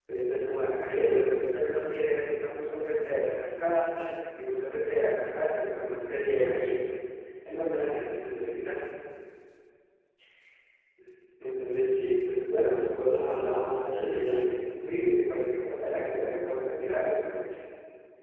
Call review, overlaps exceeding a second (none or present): present